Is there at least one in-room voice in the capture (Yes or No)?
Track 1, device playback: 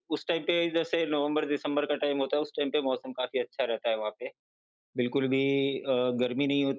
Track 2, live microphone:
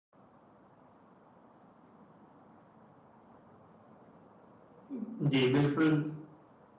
Yes